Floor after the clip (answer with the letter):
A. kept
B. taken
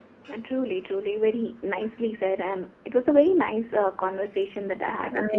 B